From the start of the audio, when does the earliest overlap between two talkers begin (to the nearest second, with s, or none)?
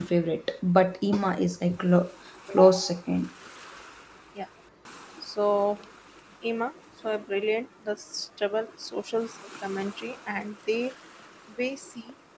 none